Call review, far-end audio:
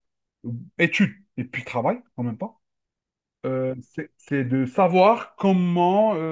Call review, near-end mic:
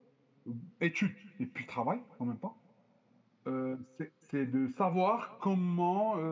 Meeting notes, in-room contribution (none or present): none